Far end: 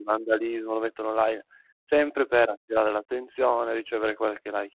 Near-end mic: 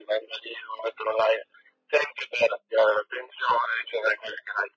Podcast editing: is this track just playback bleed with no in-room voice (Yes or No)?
Yes